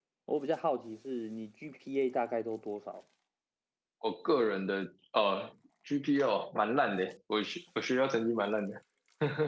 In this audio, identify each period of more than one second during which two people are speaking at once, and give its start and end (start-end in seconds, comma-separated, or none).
none